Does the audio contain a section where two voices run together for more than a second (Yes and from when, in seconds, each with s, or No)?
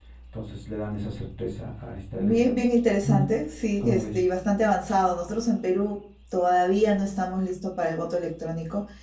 No